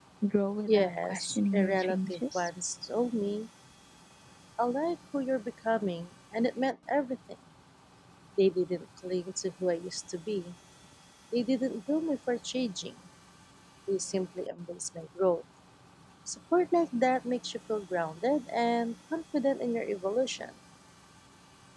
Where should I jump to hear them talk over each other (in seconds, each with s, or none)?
0.7 s